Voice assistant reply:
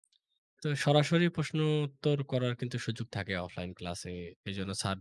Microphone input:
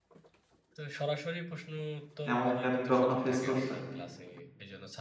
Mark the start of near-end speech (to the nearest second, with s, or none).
2 s